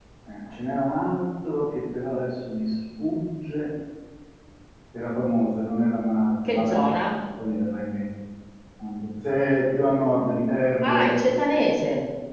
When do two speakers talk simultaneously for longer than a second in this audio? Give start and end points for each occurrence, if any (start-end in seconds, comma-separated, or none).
none